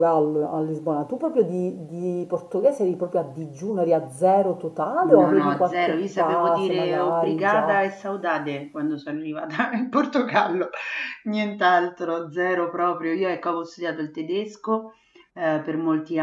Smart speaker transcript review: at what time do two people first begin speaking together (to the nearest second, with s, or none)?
5 s